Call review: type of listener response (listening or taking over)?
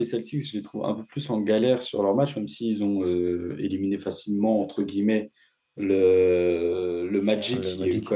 listening